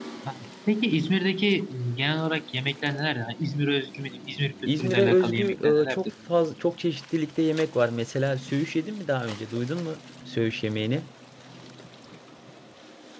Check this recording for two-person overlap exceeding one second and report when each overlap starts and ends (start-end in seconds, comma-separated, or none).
4.8-6.0